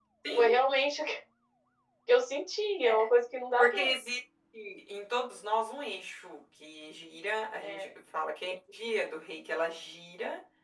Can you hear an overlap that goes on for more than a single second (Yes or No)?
No